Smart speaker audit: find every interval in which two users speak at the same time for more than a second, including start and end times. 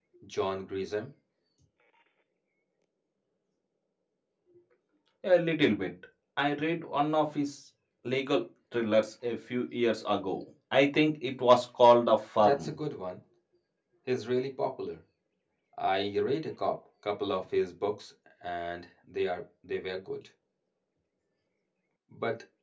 none

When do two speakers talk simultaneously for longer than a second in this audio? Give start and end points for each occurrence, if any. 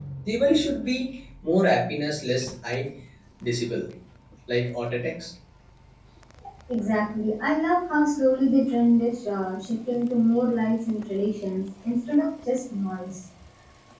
none

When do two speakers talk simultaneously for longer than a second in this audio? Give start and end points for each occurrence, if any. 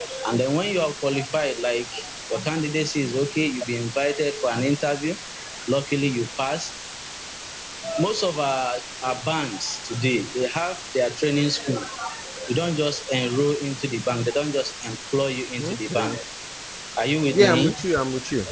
none

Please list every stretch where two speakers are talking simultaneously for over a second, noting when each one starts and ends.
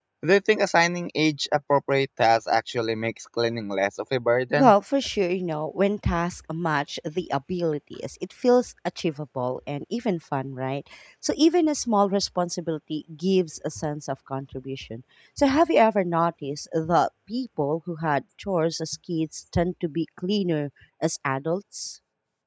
none

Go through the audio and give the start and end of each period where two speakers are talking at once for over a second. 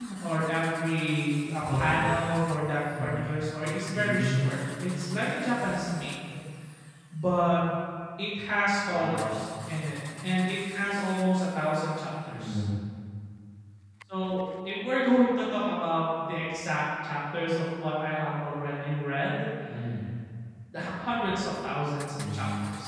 4.0-5.2

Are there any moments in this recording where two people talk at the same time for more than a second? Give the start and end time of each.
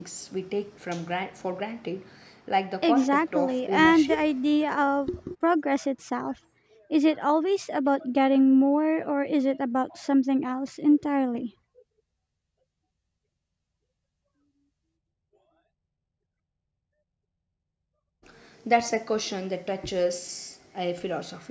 2.8-4.3

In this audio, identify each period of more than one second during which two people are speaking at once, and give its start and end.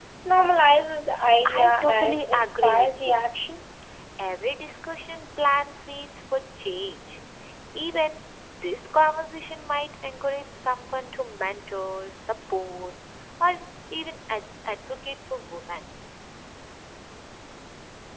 1.5-3.2

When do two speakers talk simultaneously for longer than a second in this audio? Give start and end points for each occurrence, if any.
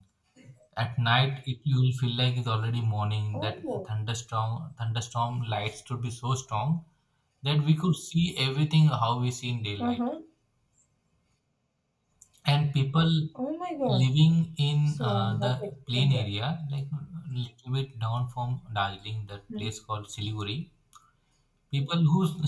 15.0-16.2

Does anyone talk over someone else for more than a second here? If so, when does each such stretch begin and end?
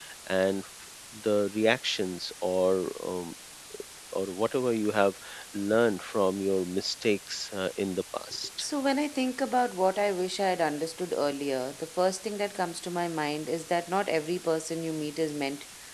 none

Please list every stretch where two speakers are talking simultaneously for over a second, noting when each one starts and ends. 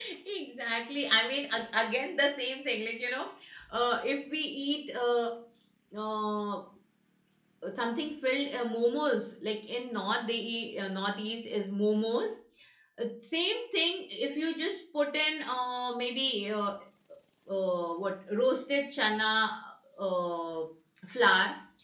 none

